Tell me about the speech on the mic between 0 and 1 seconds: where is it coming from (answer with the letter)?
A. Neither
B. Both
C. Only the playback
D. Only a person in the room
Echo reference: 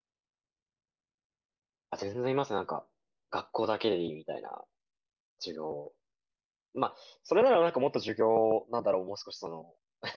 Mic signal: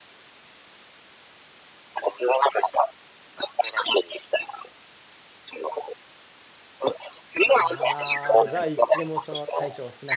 A